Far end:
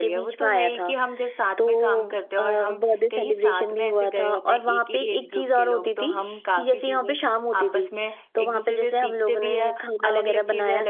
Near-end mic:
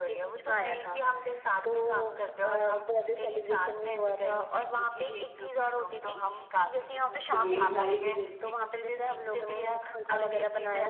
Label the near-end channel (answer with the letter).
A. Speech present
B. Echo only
A